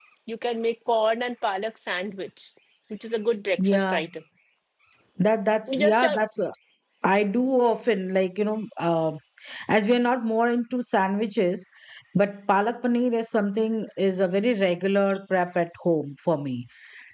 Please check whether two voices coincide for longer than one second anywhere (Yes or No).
No